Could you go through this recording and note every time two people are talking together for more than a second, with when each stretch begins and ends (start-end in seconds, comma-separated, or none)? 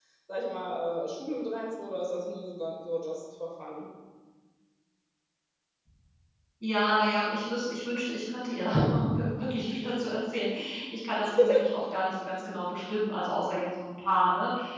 none